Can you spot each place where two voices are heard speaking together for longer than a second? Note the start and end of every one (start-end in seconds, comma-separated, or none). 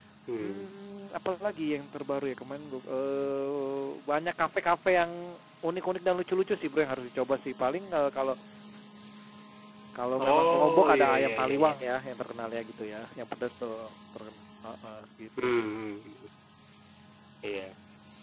10.2-11.8